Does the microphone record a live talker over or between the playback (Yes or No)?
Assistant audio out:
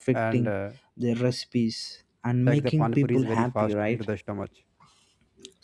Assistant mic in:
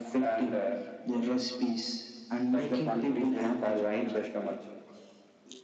No